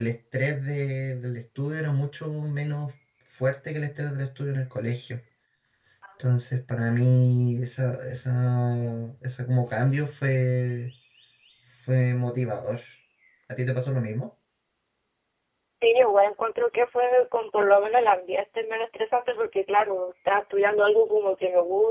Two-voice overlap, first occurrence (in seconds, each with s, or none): none